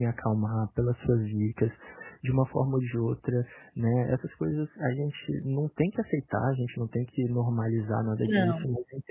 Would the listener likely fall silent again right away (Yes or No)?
Yes